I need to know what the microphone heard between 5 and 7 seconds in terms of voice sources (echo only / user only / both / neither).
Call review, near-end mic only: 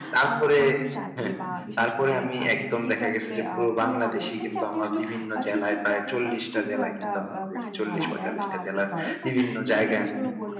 both